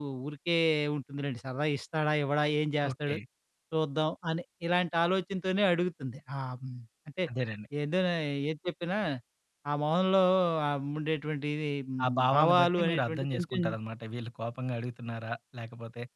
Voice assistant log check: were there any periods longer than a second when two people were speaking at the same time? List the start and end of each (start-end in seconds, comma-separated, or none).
12.0-13.6